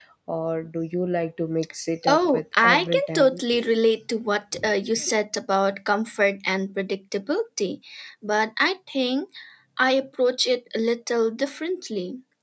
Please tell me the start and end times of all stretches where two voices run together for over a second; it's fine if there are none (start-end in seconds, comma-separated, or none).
2.1-3.4